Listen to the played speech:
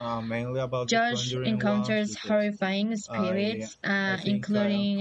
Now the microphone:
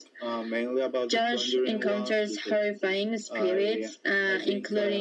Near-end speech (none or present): none